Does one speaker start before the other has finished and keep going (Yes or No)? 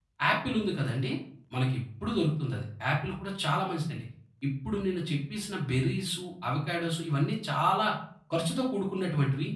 No